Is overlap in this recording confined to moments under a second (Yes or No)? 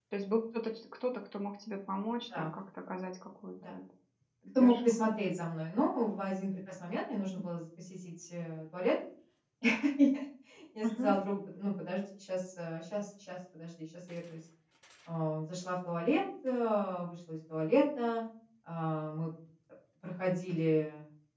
Yes